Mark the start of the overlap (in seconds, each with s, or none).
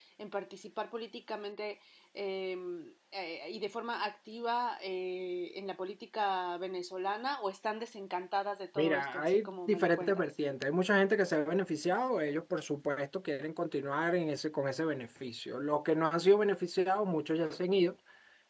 8.8 s